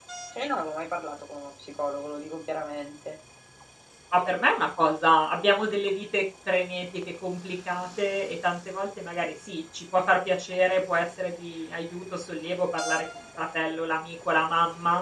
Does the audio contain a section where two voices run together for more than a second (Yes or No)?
No